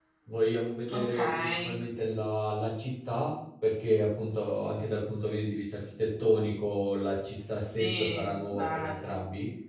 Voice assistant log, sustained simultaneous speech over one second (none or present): present